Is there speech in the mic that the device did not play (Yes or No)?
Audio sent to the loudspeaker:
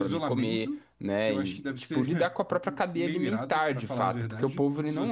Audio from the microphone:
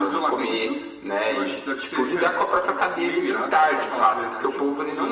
No